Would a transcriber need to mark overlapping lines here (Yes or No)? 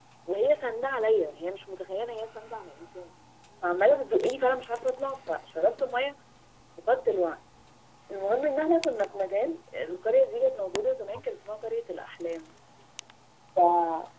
No